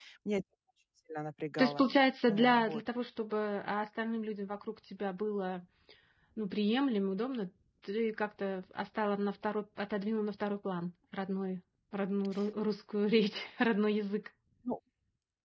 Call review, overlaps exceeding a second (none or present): none